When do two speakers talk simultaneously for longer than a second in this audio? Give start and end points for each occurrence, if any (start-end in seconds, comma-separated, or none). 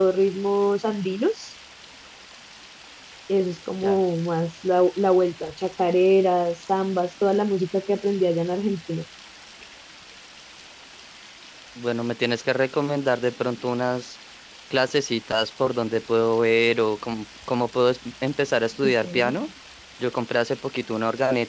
none